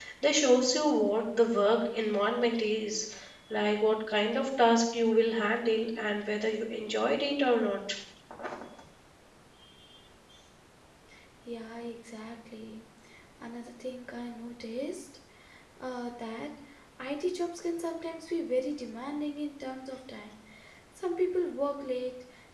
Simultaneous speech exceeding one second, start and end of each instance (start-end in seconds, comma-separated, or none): none